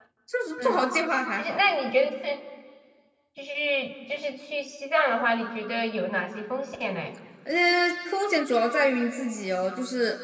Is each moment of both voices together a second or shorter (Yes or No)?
Yes